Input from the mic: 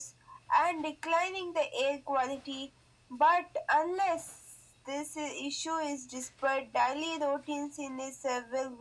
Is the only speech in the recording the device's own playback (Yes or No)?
Yes